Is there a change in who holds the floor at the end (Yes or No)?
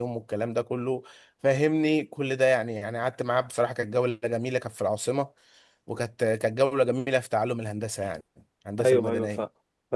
Yes